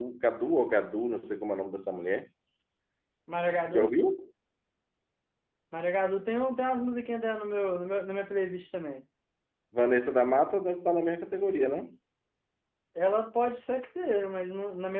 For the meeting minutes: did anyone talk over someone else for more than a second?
No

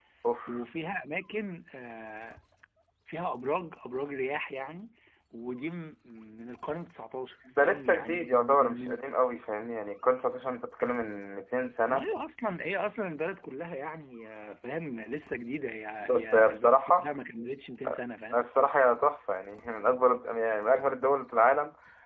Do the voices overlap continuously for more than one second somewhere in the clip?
Yes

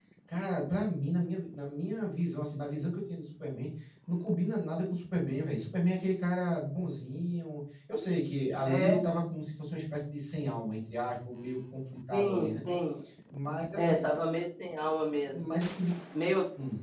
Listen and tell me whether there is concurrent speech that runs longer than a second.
No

